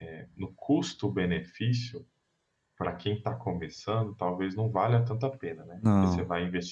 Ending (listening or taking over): listening